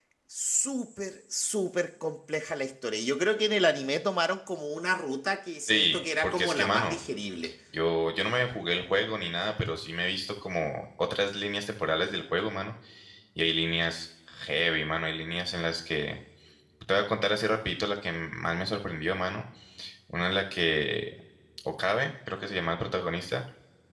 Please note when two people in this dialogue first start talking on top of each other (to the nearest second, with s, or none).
6 s